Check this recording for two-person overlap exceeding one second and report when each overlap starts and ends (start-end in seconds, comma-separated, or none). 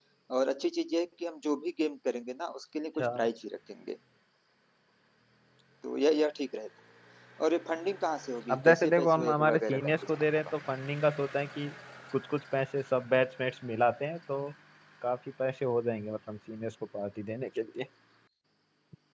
8.5-10.2